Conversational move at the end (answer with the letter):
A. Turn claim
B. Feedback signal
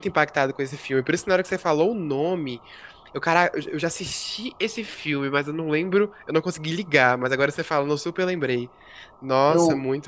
A